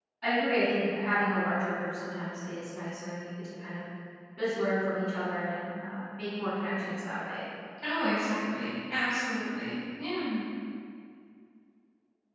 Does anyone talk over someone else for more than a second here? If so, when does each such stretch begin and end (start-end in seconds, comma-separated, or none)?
none